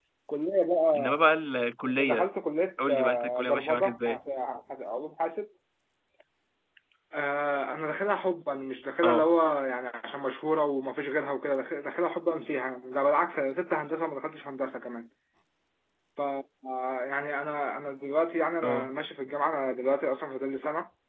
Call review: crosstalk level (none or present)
present